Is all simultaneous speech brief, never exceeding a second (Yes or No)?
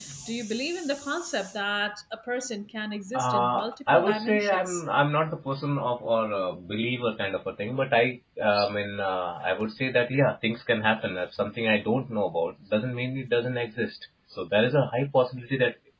No